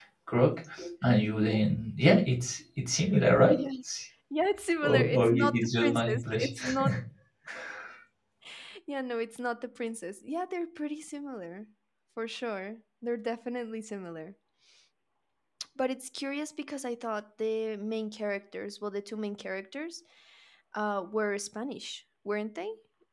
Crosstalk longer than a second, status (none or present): present